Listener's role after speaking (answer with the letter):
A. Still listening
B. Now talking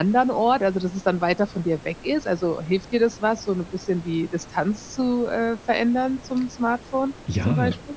B